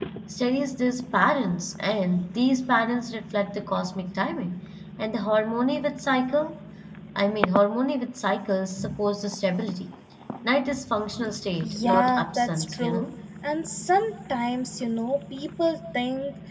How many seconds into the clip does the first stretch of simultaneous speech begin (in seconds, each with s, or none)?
11.6 s